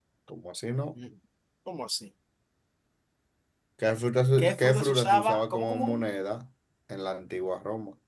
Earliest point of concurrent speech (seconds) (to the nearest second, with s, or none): 4 s